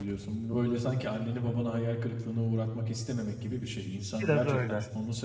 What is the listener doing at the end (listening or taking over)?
listening